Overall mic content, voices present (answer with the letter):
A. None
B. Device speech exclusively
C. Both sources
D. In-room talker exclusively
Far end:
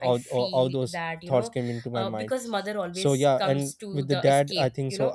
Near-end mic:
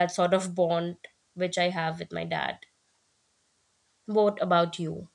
D